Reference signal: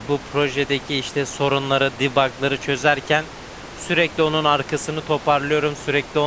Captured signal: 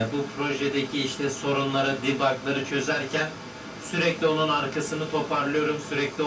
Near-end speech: none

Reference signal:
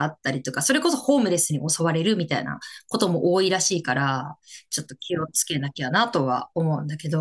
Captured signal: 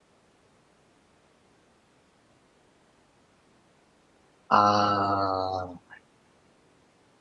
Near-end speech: present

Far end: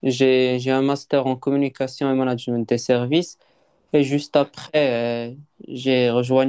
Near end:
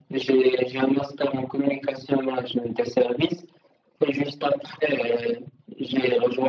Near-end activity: none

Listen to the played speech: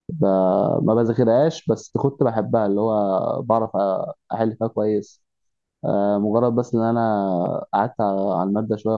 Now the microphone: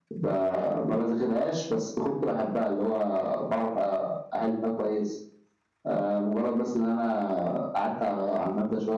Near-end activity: none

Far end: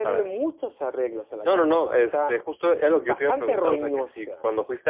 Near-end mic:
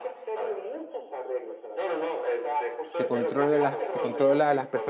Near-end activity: present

